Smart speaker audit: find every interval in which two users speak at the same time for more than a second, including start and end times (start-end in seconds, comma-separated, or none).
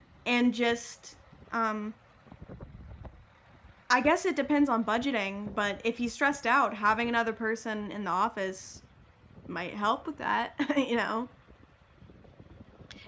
none